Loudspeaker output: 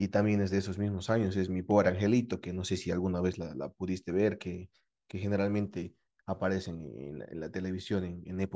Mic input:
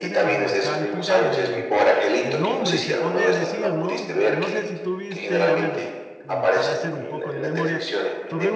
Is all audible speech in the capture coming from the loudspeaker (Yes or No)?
No